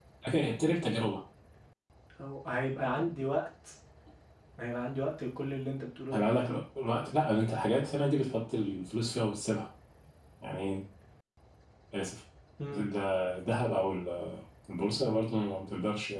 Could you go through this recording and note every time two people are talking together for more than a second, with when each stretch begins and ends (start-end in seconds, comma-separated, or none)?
none